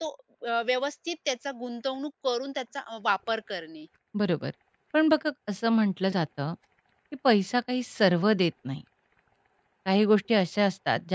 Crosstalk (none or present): none